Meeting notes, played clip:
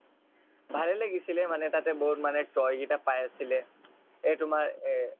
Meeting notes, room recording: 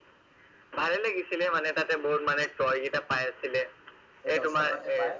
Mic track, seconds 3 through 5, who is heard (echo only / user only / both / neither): both